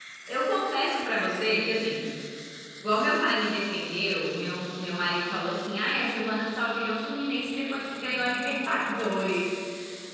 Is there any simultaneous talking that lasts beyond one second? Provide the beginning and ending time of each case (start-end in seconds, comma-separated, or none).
none